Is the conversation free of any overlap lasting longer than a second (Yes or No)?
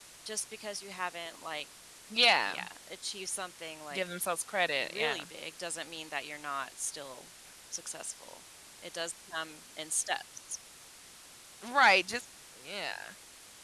Yes